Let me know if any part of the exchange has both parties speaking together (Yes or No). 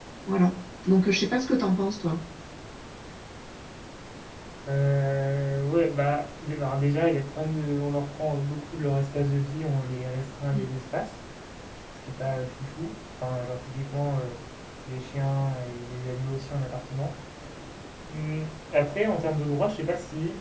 No